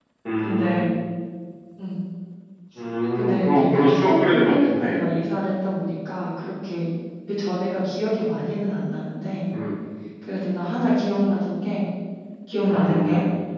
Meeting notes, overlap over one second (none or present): present